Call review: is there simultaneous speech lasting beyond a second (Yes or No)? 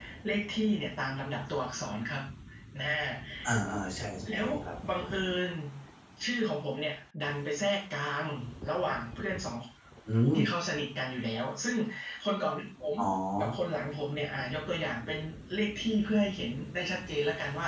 No